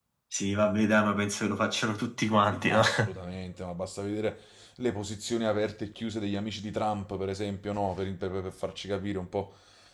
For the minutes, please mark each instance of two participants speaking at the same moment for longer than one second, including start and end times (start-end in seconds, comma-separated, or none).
none